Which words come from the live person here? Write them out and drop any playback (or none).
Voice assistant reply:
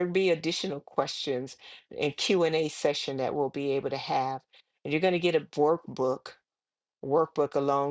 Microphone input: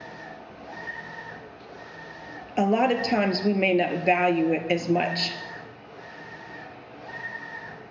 a lot of times we may not value it as much